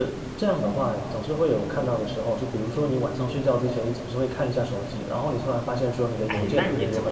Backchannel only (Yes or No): No